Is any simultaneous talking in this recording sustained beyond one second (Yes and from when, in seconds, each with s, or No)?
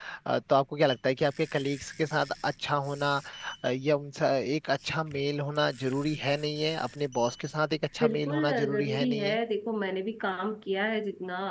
Yes, from 8.0 s